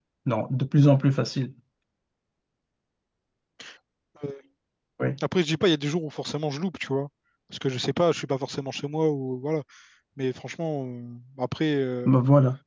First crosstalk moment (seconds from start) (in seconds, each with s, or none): none